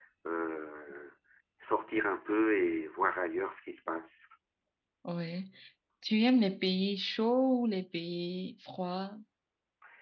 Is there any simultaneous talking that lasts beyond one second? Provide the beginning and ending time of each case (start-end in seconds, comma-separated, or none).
none